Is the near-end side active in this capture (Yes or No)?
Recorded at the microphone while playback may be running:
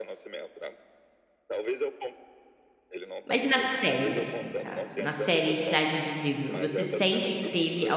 Yes